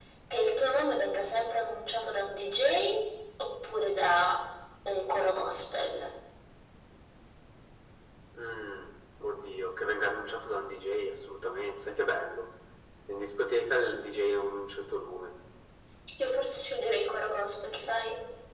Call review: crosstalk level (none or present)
none